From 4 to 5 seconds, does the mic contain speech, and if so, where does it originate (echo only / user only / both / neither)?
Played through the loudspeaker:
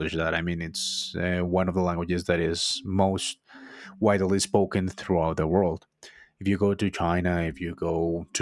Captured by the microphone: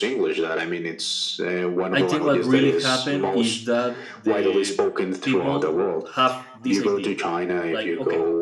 both